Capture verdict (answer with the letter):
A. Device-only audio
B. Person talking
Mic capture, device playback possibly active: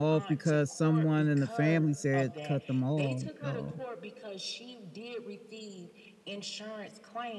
B